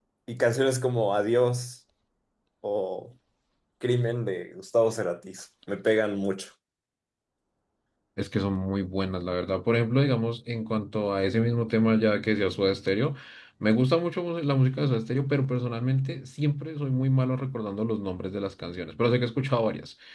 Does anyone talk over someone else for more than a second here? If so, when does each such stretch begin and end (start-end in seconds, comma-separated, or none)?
none